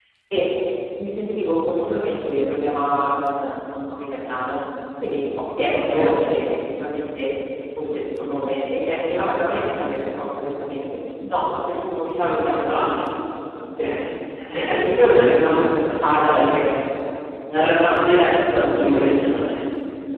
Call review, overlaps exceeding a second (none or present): present